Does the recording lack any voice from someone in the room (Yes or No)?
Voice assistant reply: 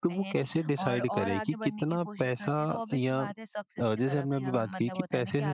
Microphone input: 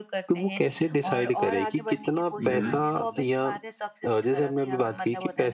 No